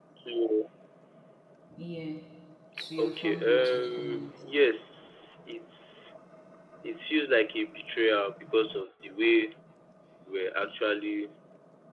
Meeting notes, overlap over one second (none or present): present